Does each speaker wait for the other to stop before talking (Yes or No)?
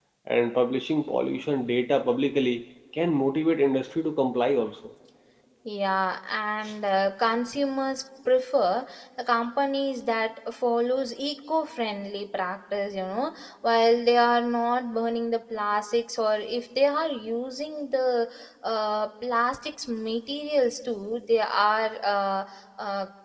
Yes